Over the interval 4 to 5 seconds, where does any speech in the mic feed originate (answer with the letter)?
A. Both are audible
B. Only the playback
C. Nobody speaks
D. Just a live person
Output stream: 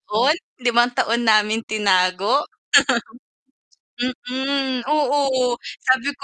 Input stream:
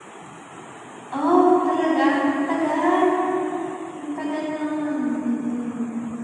D